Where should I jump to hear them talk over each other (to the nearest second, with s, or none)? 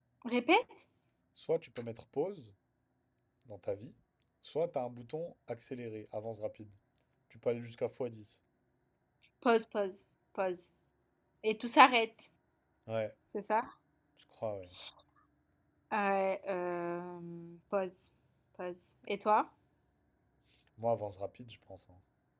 none